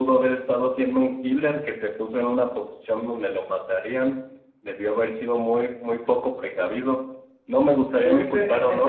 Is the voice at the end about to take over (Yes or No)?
Yes